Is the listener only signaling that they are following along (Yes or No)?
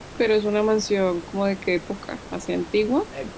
No